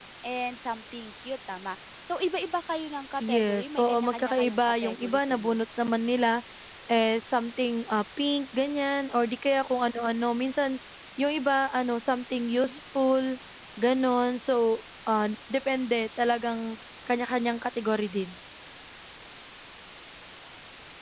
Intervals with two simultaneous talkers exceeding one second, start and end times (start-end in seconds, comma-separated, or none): 3.2-5.6